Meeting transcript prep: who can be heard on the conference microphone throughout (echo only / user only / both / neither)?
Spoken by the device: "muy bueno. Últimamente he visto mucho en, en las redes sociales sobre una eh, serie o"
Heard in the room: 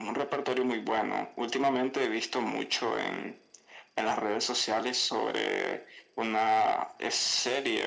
echo only